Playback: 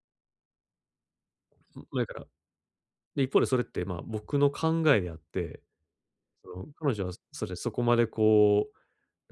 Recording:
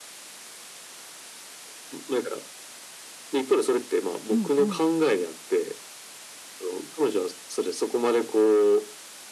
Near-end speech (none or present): present